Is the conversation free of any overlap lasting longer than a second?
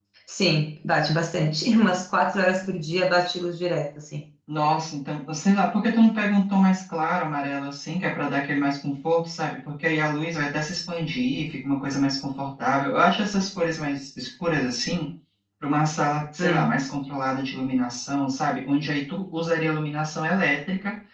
Yes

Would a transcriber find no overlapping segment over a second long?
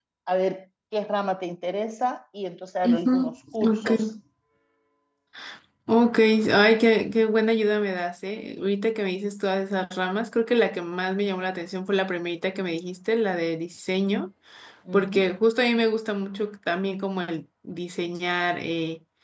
Yes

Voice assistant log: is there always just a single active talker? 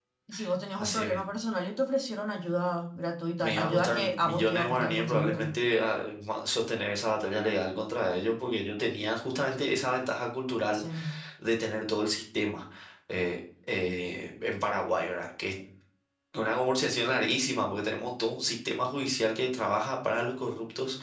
No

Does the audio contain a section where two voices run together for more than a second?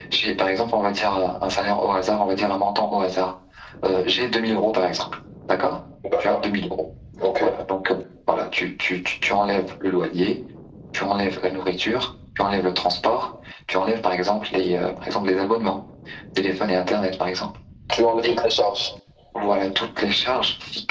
No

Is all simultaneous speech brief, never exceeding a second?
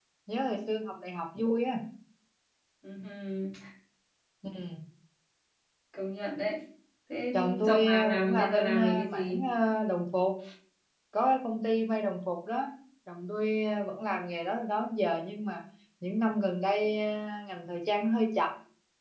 No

